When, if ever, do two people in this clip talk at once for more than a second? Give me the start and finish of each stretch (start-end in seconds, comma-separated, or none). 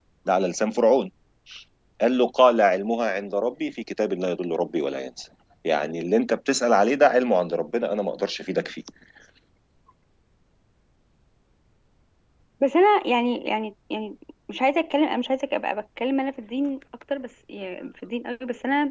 none